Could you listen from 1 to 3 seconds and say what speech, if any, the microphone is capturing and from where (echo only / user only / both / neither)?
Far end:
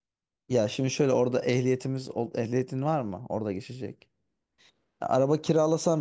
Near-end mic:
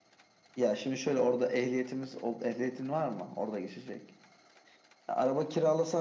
echo only